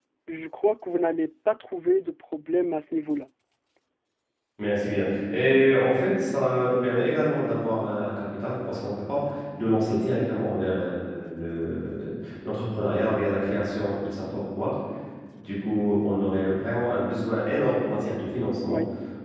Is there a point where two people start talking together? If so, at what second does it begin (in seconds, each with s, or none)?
none